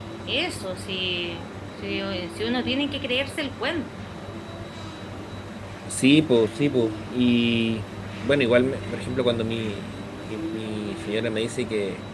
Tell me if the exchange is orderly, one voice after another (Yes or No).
Yes